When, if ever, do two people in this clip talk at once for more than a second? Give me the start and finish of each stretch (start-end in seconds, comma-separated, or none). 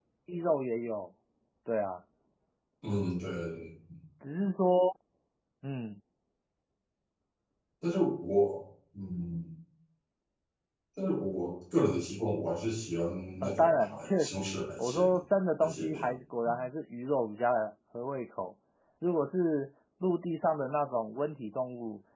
13.4-15.1